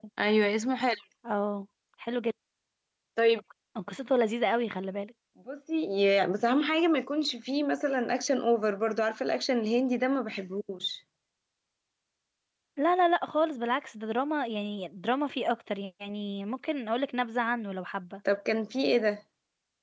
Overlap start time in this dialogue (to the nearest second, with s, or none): none